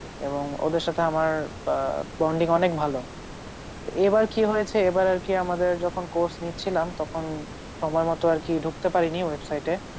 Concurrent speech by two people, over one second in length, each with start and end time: none

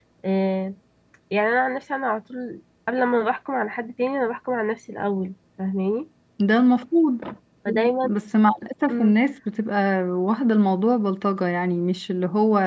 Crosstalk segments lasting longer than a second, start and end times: none

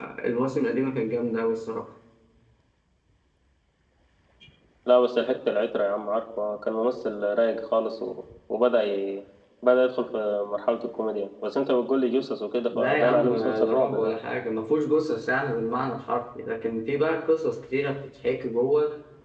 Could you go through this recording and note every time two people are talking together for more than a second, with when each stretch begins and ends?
12.7-14.1

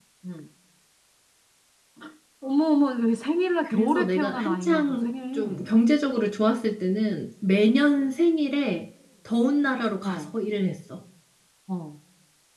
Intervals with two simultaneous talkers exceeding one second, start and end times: 3.7-5.6

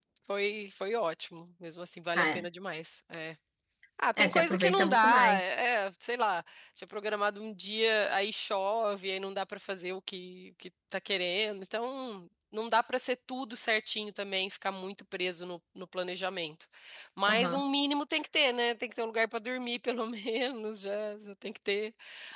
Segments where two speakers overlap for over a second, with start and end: 4.2-5.5

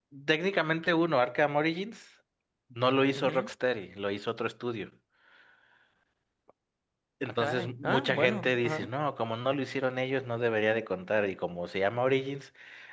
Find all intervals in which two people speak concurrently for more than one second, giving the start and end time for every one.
7.2-8.9

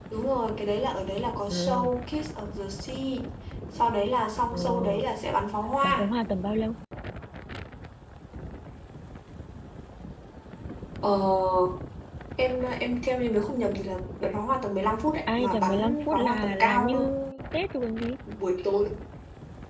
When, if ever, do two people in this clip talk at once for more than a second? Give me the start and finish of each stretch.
15.3-17.0

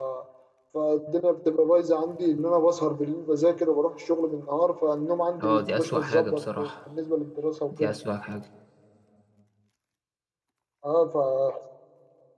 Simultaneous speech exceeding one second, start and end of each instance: 5.4-6.7

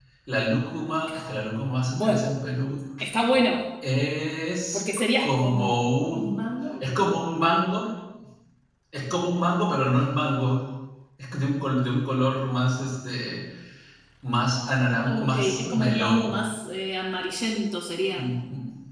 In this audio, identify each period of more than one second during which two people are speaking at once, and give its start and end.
4.7-6.4, 15.0-16.4

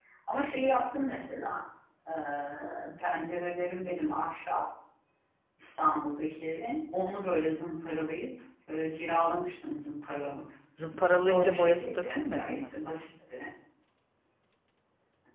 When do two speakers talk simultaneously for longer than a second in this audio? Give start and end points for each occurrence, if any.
11.2-12.7

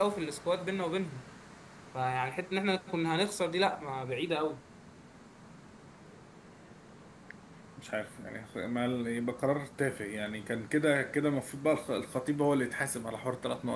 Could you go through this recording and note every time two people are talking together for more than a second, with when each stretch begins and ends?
none

